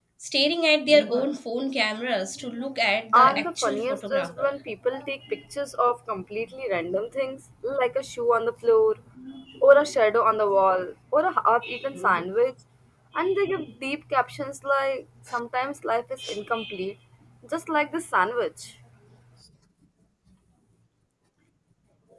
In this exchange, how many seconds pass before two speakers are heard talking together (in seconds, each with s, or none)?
3.1 s